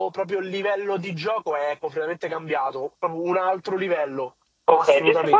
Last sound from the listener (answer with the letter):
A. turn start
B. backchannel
A